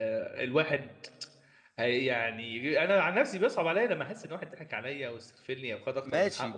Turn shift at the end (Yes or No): Yes